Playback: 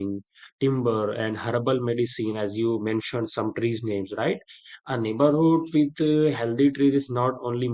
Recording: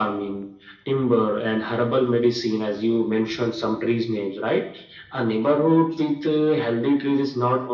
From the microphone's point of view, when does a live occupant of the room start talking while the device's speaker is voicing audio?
none

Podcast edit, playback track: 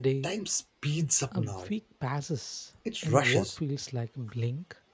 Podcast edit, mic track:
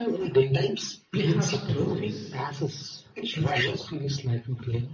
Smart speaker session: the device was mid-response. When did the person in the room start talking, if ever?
1.1 s

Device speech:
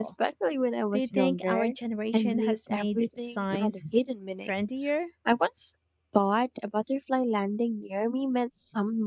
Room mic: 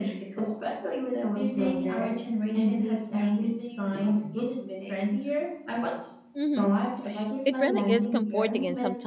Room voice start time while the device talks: 6.3 s

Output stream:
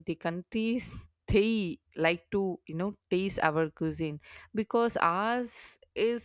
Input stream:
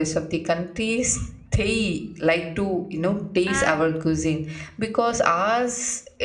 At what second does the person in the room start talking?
3.4 s

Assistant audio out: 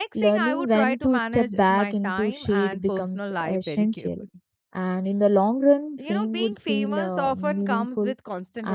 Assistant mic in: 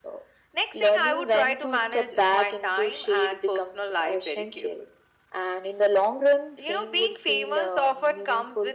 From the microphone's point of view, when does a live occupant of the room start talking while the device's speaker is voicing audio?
none

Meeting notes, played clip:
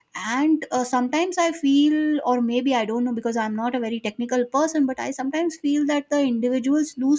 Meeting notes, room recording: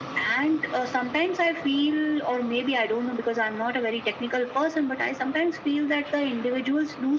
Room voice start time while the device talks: none

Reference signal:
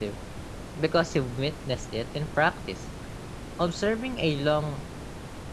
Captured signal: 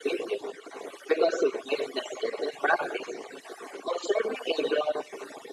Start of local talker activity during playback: none

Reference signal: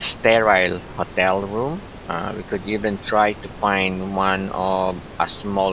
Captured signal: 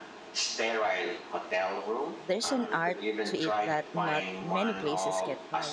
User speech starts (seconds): 2.2 s

